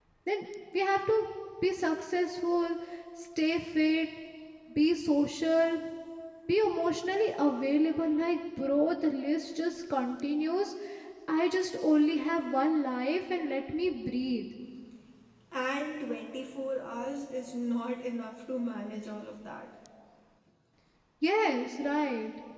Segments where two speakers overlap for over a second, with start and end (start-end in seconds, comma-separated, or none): none